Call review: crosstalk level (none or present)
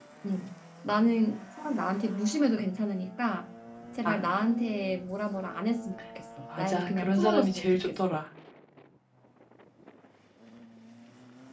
present